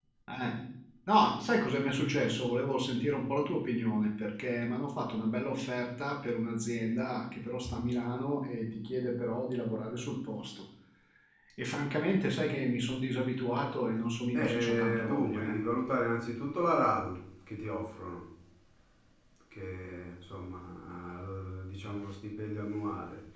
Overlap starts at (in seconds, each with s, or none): 14.3 s